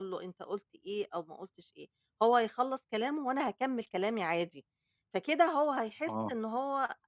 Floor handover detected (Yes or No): No